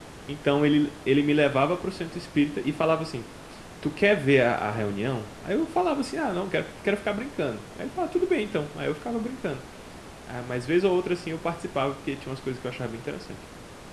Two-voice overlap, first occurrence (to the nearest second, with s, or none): none